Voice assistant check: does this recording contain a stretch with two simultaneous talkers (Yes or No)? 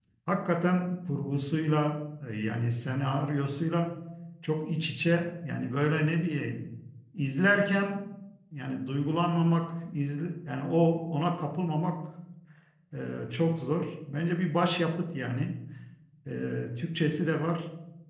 No